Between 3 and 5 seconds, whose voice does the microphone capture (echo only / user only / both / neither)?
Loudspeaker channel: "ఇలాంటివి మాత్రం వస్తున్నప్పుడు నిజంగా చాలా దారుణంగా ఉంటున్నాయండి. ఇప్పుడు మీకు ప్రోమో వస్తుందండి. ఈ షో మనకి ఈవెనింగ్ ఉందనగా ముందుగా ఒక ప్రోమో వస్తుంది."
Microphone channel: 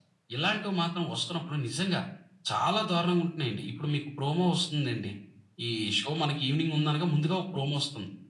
echo only